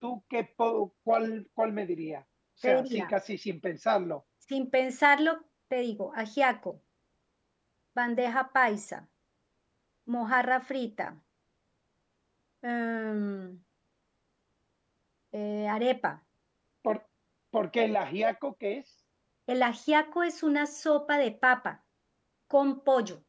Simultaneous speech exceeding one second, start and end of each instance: none

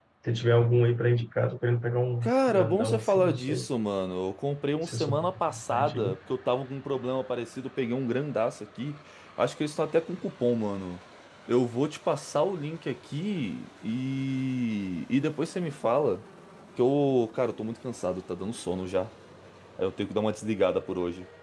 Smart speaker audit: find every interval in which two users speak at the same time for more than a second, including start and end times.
2.2-3.7, 4.8-6.2

